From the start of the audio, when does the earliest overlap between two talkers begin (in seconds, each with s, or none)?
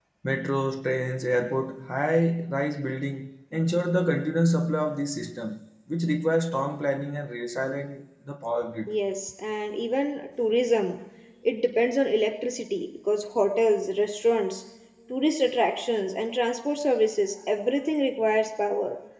none